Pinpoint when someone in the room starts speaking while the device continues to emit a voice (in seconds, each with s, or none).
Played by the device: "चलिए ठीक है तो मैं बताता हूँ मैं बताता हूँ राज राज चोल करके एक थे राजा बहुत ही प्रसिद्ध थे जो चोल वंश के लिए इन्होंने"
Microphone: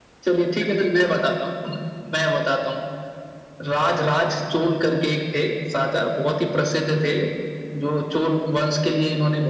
none